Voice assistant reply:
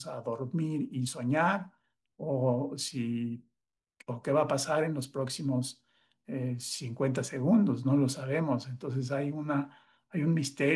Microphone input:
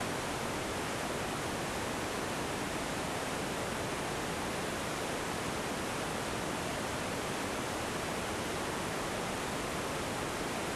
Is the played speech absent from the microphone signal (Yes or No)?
Yes